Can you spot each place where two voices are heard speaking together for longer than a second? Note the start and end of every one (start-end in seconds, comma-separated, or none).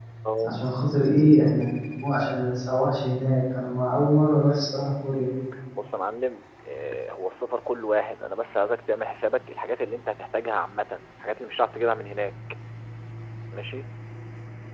none